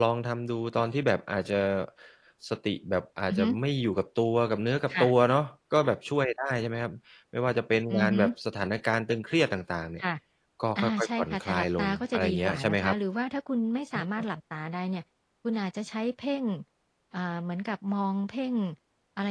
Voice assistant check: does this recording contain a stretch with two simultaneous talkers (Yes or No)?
Yes